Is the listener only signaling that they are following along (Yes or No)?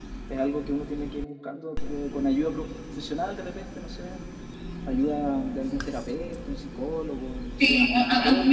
No